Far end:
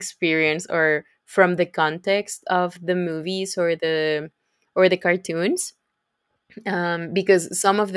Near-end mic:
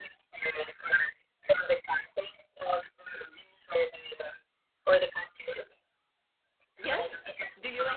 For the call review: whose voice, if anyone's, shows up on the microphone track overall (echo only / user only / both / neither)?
both